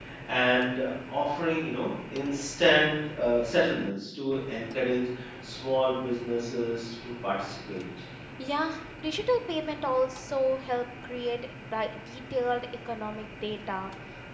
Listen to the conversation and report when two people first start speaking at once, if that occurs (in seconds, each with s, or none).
none